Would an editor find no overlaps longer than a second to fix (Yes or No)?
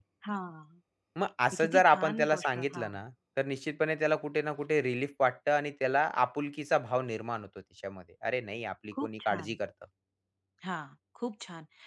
No